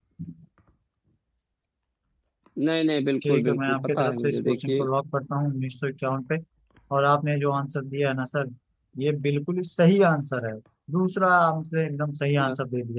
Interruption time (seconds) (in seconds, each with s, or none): 3.3 s